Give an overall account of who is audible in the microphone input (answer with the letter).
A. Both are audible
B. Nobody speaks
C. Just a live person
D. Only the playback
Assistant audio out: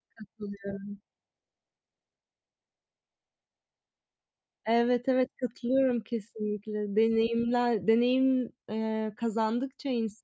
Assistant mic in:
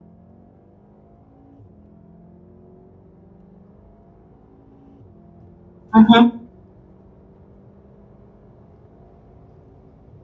C